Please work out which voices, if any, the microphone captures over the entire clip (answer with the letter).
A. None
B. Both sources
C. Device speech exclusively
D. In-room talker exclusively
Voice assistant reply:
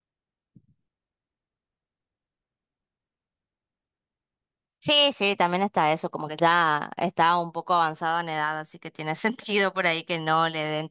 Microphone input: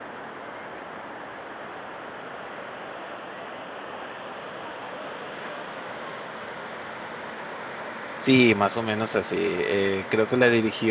D